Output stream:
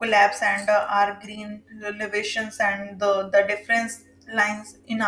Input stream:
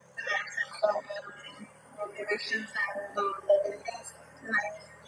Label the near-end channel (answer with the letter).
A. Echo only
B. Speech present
A